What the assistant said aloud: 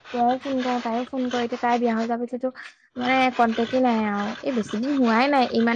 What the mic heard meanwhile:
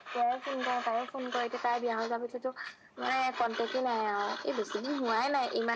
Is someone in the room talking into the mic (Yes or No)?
No